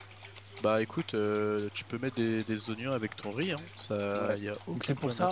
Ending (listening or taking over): taking over